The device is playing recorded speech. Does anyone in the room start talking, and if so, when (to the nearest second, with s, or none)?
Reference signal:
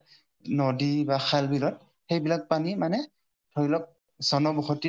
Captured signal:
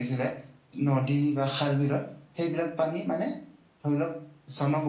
none